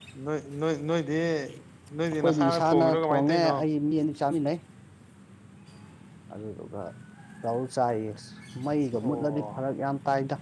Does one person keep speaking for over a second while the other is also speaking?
Yes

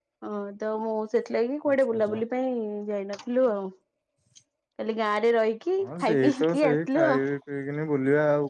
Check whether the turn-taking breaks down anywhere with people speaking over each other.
Yes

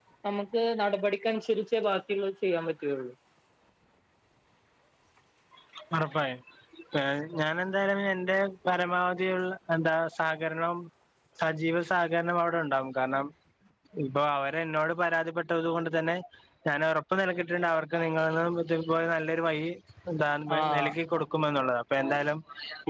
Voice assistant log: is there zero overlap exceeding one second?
Yes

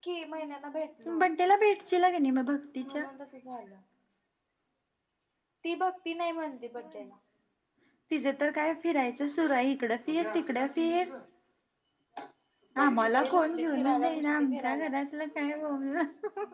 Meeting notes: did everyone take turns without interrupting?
No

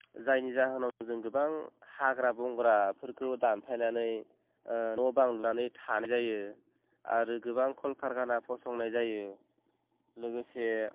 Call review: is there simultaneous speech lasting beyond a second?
No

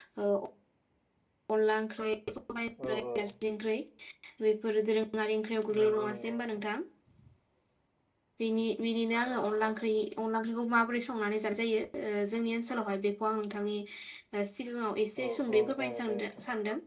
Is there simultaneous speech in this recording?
Yes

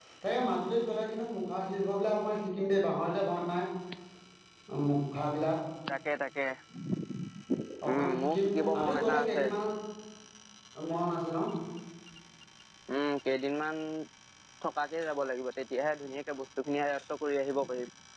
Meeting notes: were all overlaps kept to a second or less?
No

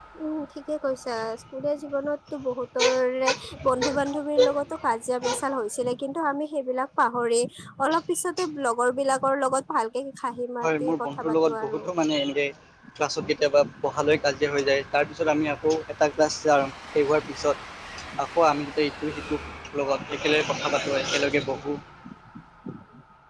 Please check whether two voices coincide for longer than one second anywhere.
Yes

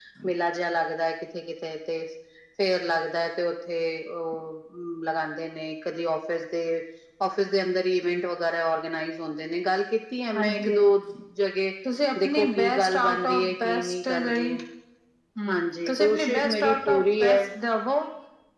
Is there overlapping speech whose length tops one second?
Yes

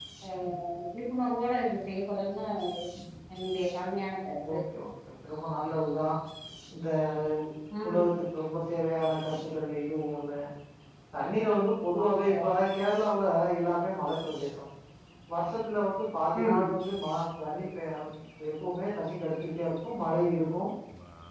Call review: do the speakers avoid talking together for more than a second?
Yes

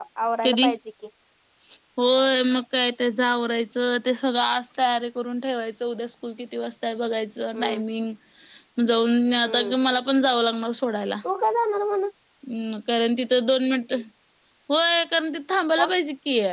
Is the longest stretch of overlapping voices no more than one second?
Yes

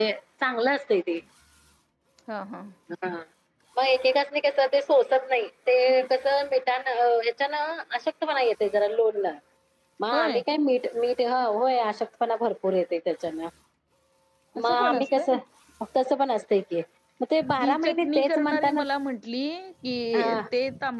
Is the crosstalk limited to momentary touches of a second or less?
No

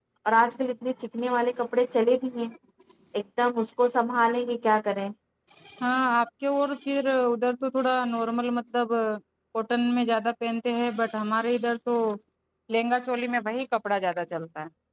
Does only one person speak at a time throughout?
Yes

